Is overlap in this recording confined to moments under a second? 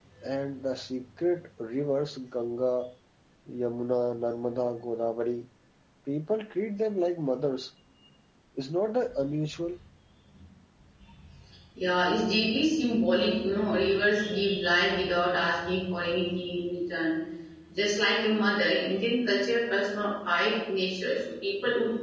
Yes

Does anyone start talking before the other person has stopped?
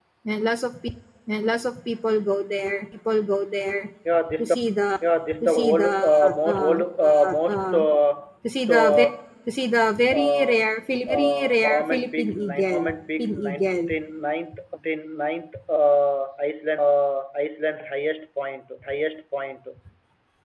Yes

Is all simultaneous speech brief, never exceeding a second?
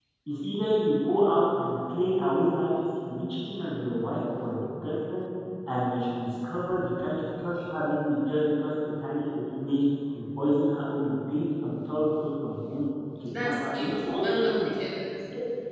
No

